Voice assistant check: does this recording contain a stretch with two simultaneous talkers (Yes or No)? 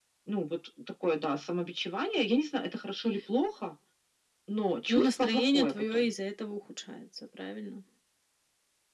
Yes